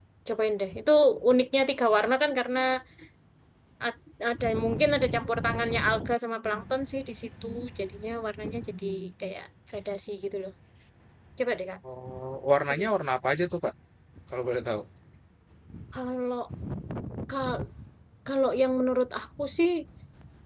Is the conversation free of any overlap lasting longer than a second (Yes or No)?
Yes